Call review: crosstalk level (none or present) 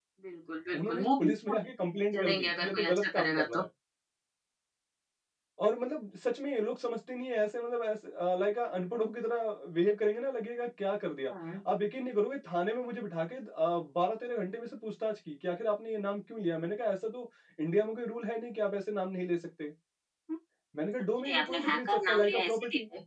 present